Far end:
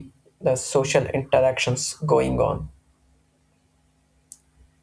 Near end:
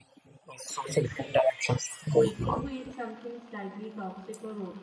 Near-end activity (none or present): present